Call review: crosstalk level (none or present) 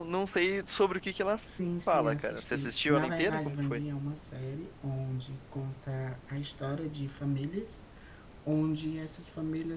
present